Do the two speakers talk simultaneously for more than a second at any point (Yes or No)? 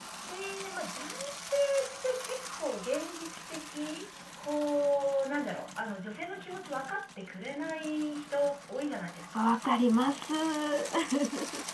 No